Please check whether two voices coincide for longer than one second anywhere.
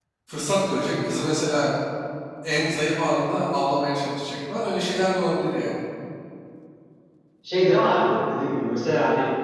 No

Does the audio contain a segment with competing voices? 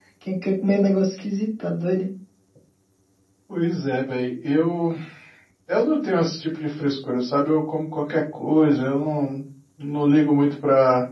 No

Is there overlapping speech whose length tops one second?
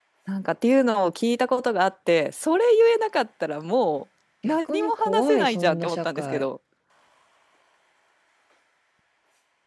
Yes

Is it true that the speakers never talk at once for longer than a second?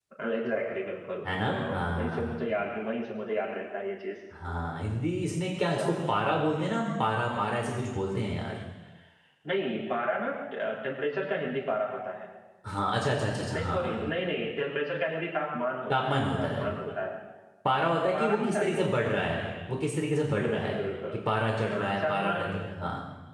No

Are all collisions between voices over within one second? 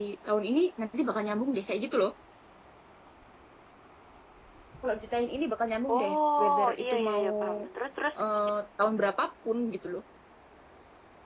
No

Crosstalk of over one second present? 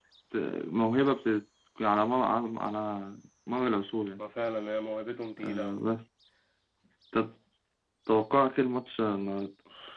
No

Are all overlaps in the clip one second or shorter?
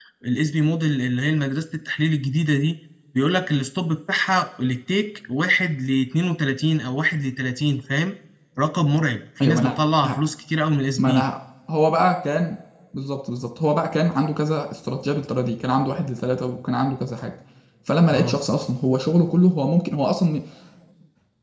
Yes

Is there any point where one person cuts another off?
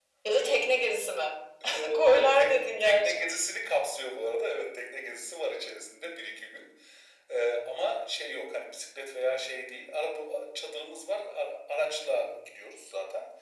Yes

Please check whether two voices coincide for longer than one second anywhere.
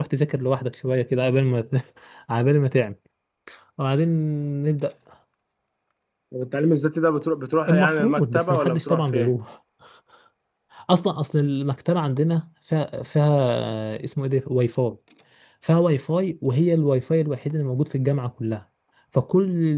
Yes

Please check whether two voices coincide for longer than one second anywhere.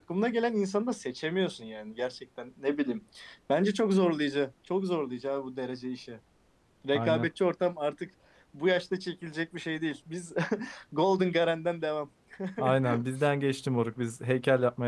No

